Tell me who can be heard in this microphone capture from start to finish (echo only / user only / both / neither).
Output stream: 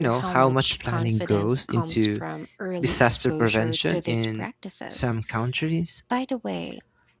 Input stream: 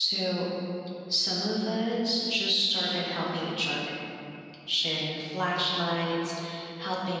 user only